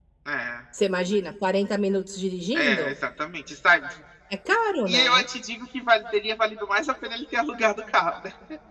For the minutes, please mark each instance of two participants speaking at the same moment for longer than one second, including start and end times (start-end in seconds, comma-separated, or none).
none